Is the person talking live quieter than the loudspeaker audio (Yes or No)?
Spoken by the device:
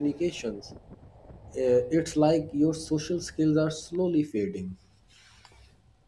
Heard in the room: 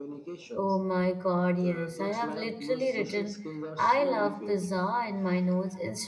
No